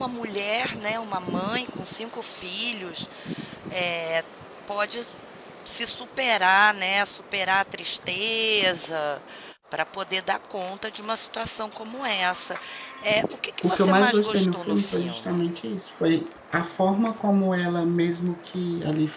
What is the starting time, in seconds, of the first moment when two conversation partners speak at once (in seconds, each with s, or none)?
13.6 s